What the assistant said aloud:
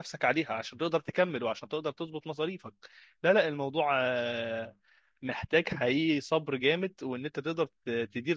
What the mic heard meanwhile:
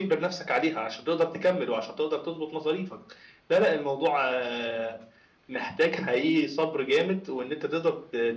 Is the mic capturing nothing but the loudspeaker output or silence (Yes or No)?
Yes